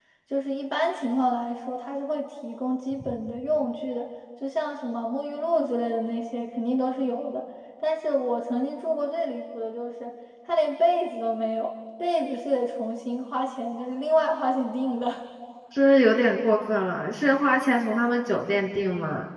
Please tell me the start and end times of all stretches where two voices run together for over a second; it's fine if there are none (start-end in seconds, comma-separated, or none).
none